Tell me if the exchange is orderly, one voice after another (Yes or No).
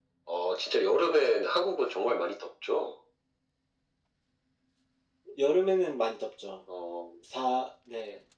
Yes